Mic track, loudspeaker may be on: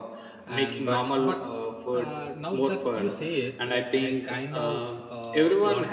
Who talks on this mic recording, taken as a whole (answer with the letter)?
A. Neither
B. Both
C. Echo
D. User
B